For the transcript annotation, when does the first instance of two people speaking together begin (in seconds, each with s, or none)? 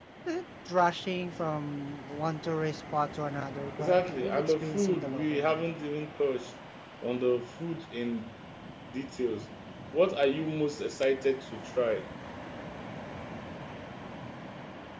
3.8 s